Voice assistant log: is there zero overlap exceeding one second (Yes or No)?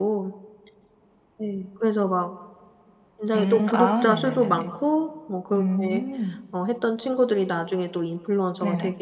No